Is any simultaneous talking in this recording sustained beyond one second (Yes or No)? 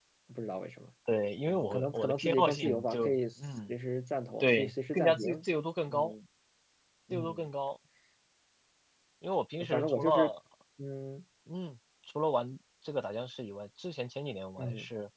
Yes